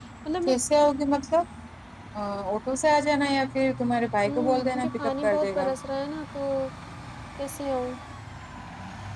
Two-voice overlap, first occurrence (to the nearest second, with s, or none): 4 s